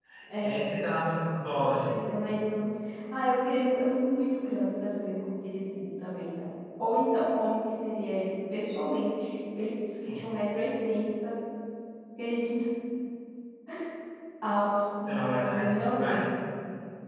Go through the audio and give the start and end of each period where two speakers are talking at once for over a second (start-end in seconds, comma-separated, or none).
15.1-16.4